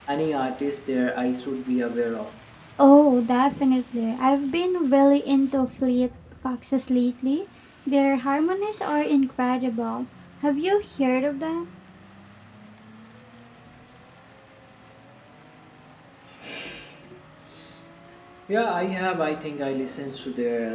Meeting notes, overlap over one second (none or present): none